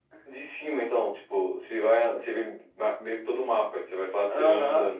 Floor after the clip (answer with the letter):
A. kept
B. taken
B